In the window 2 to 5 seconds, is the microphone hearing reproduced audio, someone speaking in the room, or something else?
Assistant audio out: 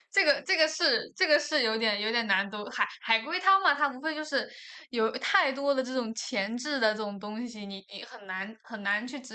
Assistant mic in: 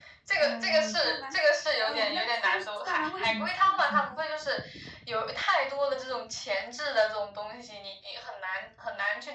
both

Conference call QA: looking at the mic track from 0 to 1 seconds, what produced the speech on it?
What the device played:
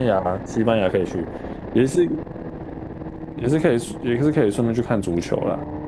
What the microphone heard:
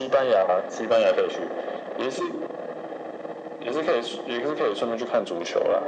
echo only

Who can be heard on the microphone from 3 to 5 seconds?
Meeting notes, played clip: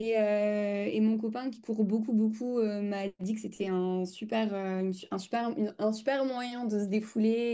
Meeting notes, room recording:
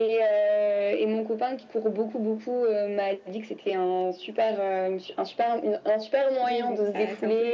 echo only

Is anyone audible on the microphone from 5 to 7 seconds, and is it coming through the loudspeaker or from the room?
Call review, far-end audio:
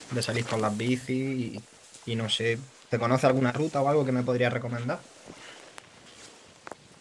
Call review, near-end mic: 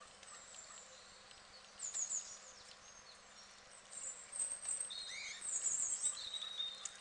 neither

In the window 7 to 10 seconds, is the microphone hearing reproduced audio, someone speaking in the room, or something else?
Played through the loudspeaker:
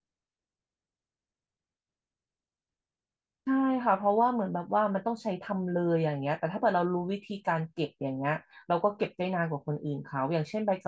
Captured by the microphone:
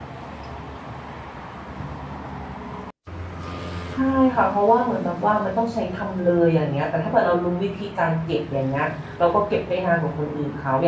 echo only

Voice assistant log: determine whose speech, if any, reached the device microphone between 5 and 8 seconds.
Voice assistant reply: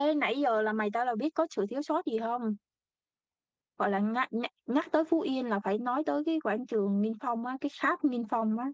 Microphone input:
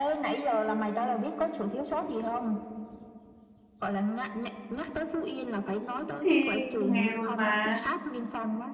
both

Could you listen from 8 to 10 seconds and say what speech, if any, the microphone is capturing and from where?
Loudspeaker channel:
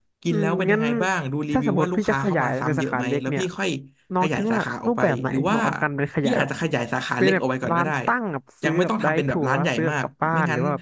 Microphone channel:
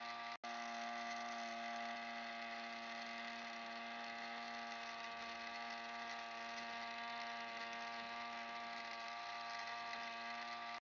neither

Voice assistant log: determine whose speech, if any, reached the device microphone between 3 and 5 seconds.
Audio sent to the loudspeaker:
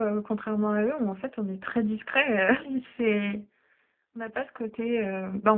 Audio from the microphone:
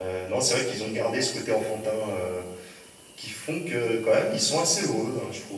user only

